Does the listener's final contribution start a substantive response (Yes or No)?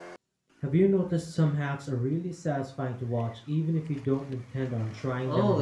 Yes